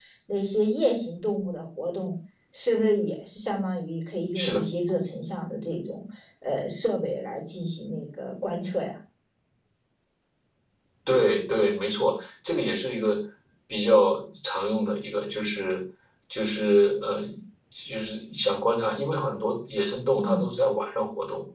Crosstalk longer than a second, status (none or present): none